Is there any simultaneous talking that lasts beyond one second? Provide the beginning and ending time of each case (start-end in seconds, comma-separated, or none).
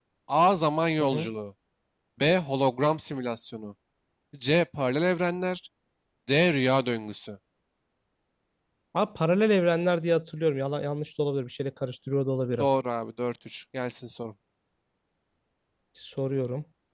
none